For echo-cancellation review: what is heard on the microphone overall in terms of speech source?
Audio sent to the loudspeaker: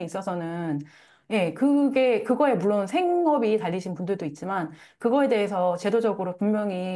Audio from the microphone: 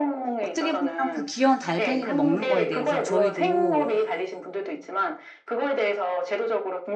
both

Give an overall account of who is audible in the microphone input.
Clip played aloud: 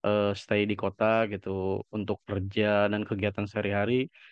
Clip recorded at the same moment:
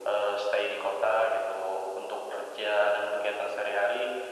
echo only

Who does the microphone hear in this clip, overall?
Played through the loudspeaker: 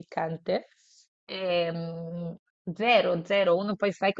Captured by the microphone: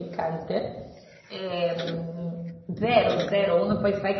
echo only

